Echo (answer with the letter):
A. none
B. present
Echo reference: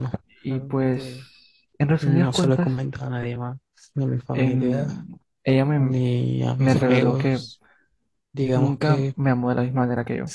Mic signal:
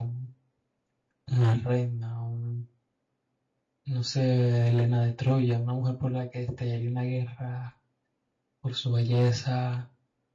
A